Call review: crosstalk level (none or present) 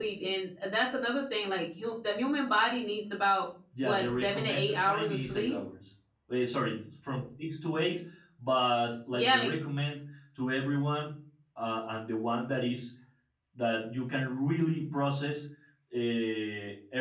present